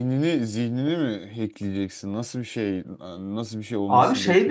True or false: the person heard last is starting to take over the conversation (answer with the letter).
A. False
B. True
B